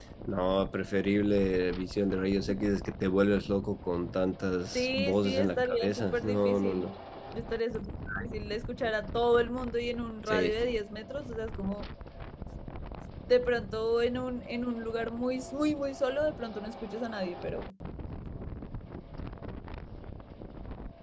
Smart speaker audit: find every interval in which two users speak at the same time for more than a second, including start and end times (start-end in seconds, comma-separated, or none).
4.8-6.9